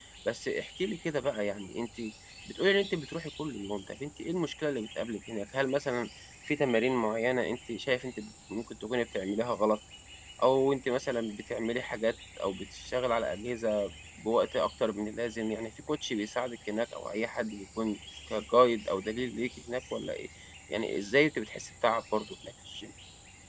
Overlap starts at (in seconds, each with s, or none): none